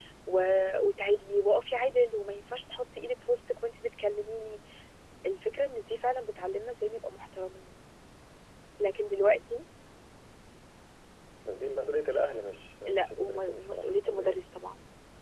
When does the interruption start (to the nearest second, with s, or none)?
13 s